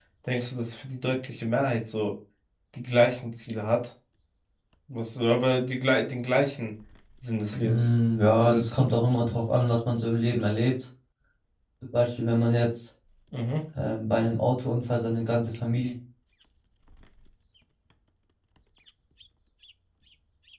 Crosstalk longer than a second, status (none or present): none